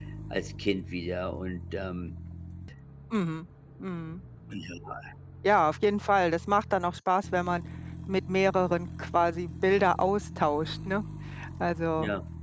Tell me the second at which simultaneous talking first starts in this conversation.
none

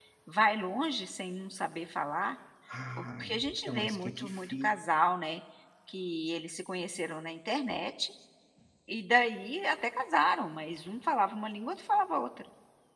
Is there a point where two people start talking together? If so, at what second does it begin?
3 s

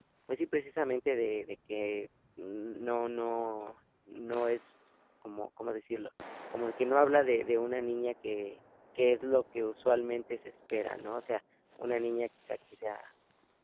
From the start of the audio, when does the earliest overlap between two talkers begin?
none

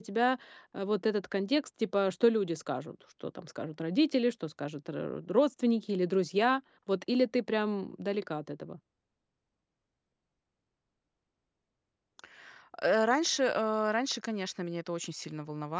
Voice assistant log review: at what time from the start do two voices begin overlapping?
none

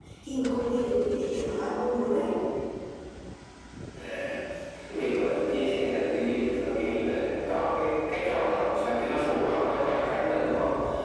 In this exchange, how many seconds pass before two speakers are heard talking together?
none

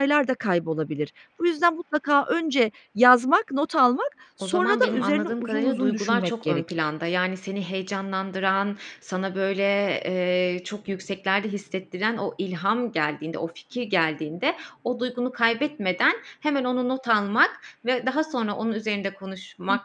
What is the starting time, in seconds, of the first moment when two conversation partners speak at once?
4 s

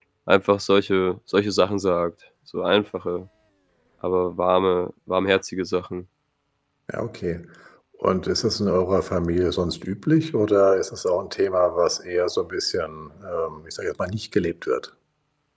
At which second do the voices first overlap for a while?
none

